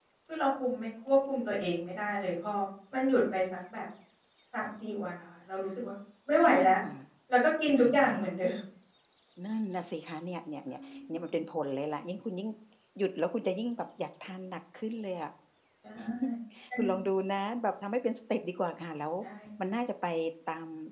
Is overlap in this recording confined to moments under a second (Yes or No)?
Yes